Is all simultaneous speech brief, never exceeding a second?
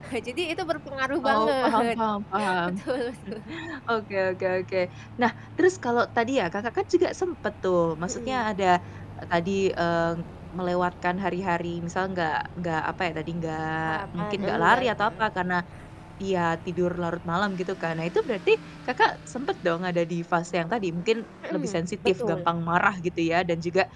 No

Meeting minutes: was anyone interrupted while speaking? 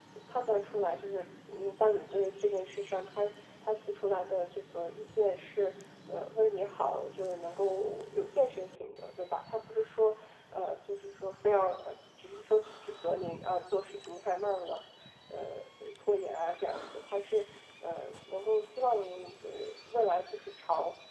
No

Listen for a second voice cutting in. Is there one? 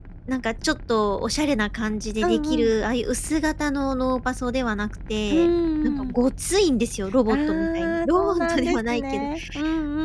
Yes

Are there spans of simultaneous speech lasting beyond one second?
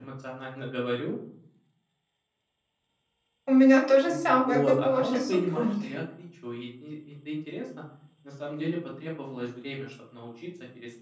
Yes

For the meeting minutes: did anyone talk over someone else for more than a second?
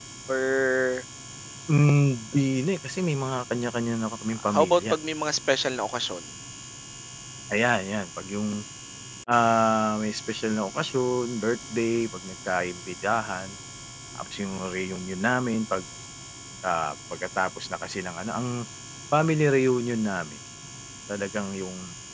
No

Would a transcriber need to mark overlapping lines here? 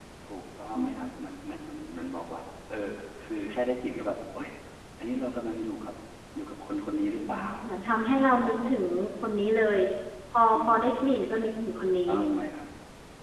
Yes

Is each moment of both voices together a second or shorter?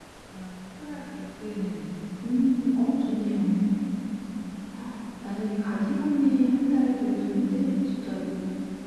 Yes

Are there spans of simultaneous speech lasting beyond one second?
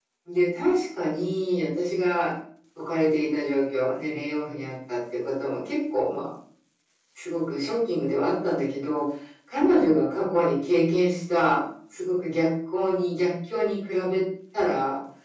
No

